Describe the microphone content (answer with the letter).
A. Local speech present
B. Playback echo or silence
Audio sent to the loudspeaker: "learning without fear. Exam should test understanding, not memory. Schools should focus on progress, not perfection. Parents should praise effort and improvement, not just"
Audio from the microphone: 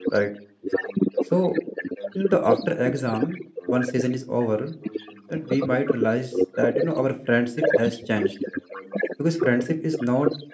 A